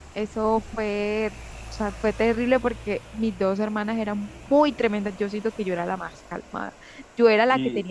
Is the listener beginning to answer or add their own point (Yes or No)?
No